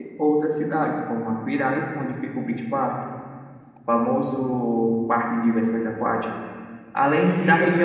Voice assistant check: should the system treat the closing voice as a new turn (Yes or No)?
No